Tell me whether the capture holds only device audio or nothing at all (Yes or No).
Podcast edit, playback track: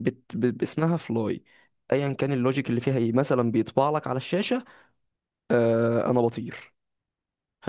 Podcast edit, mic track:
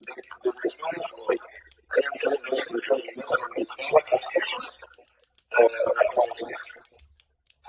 Yes